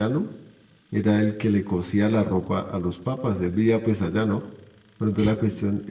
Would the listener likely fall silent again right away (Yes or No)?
Yes